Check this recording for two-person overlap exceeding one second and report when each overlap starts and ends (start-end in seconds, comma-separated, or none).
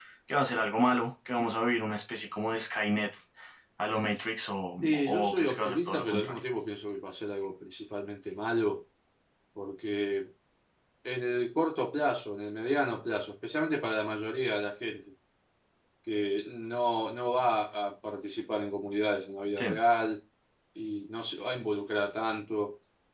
4.8-6.4